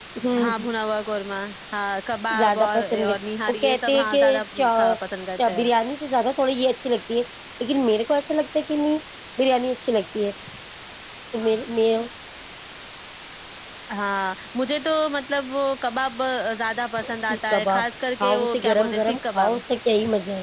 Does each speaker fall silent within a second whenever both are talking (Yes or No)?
No